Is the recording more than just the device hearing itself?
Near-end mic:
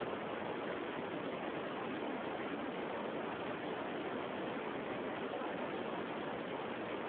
No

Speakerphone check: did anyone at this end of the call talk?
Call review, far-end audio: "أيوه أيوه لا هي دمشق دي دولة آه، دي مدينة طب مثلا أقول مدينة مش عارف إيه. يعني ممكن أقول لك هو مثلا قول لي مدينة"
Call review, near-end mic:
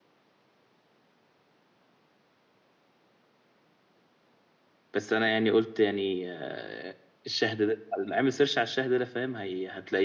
Yes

